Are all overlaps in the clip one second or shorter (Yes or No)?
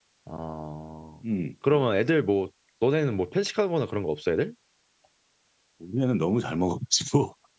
Yes